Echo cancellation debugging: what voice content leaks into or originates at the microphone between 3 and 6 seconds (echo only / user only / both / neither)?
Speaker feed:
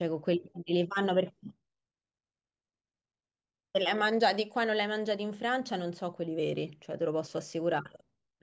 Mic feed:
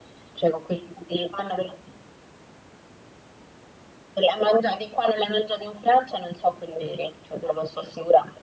echo only